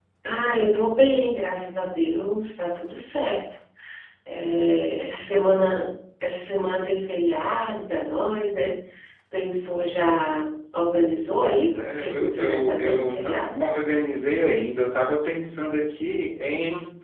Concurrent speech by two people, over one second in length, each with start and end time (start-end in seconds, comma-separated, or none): 11.4-13.7